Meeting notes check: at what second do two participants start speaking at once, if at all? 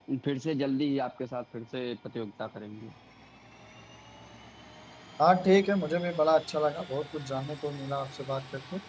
none

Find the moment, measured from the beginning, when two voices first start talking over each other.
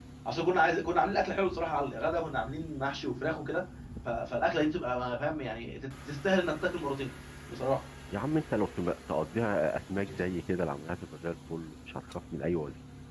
none

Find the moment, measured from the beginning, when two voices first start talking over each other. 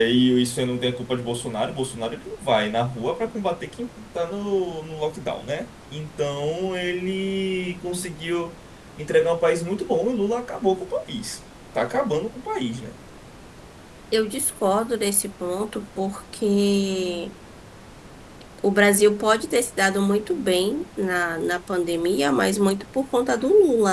none

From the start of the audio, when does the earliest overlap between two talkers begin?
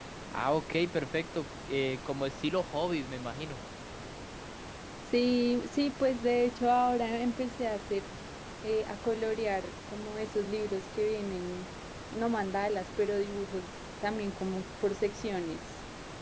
none

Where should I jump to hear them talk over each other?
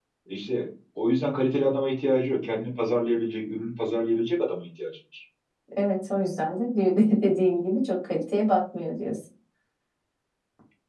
none

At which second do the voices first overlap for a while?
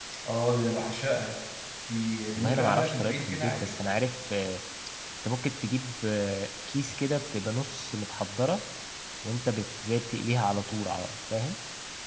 2.3 s

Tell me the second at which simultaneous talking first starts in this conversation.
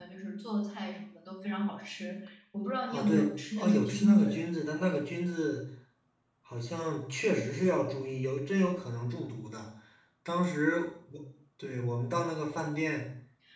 2.9 s

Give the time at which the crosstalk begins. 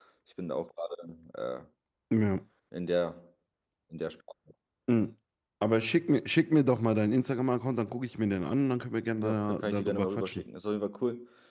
9.2 s

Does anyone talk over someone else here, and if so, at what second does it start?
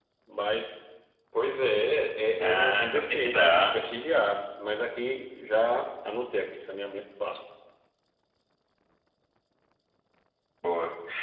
2.4 s

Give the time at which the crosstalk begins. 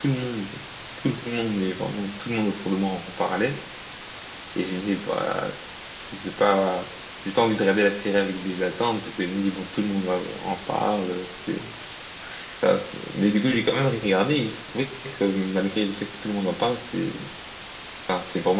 none

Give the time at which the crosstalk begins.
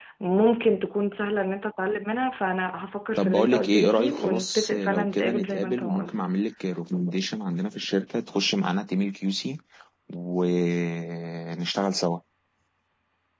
3.2 s

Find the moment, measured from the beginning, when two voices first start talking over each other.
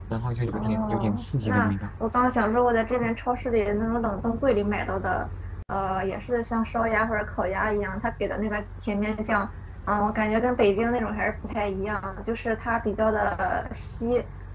0.5 s

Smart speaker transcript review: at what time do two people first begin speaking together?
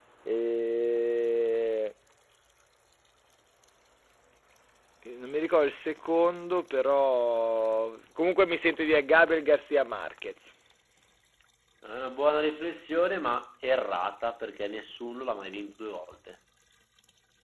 none

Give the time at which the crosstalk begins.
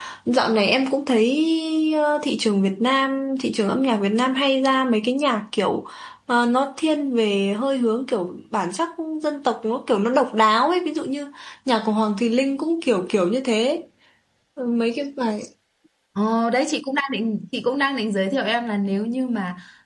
none

